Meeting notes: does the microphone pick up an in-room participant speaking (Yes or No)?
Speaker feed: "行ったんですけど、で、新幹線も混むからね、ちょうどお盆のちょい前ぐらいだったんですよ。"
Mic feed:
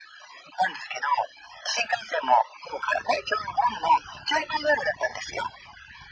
No